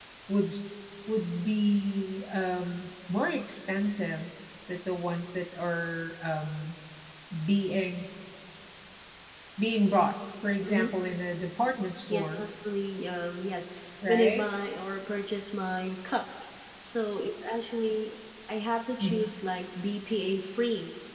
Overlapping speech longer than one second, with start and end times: none

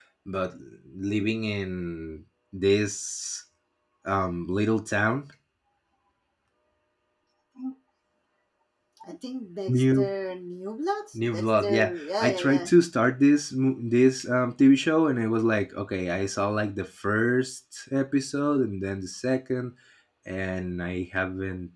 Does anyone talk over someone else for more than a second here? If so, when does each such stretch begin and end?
11.3-12.7

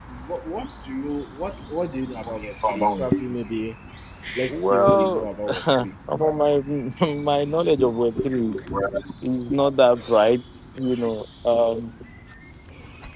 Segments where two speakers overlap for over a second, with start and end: 4.5-5.9

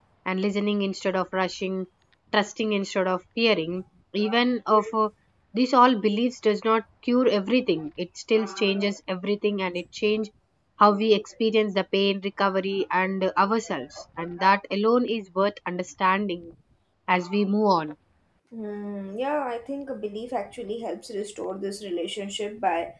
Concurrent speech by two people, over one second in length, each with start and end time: none

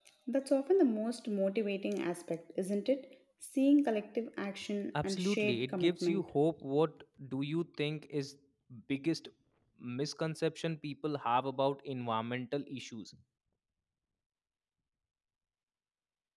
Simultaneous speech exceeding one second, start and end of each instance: 5.0-6.3

